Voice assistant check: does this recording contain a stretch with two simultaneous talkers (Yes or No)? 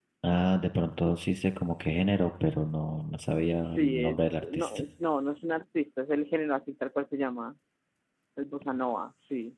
Yes